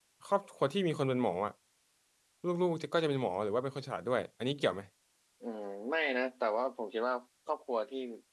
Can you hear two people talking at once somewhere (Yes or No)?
No